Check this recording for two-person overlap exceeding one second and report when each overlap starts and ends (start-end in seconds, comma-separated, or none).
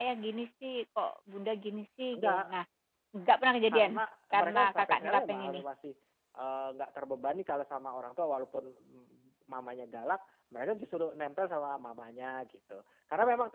4.3-5.6